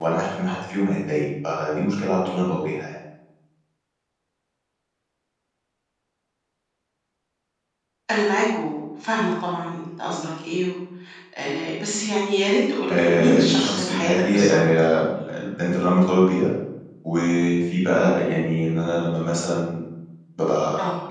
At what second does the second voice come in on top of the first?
12.9 s

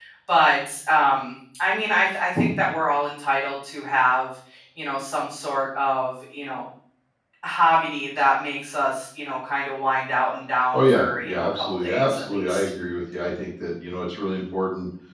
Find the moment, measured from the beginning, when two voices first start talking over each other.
10.7 s

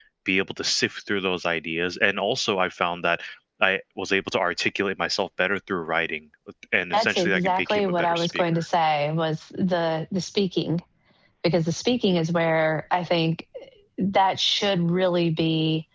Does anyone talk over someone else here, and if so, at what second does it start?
6.9 s

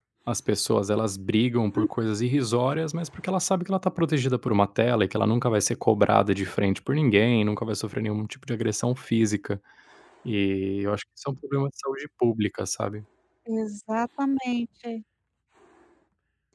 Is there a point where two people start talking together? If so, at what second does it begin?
none

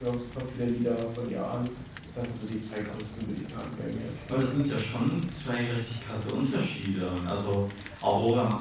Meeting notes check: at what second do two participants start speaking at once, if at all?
none

